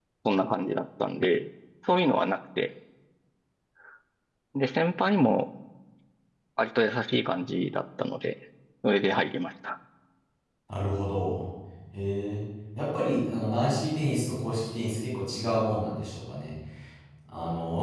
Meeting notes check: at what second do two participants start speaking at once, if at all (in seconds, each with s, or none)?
none